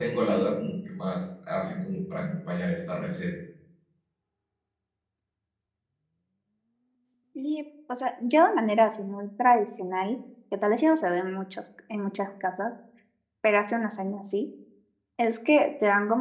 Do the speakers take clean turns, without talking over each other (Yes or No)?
Yes